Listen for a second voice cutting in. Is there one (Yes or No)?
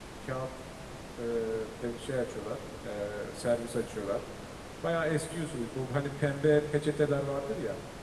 No